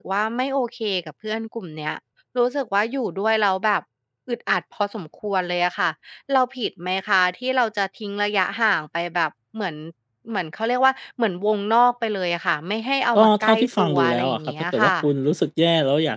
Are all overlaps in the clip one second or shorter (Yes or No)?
No